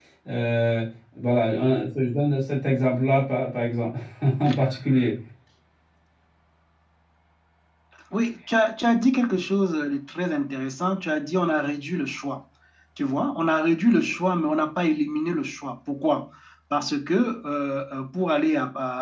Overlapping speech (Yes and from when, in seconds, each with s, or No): No